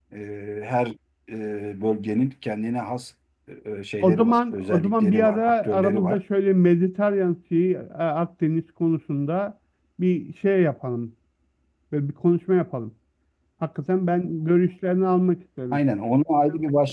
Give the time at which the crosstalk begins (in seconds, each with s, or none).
4.0 s